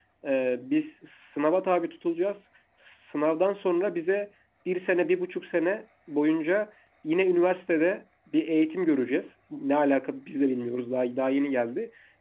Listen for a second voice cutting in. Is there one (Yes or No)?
No